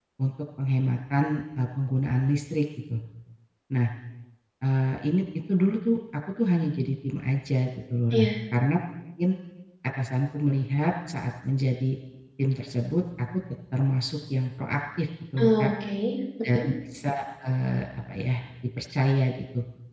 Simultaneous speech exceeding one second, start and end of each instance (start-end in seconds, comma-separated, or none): none